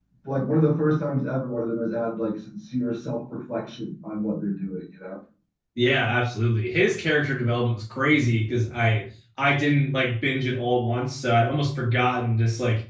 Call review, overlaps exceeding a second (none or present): none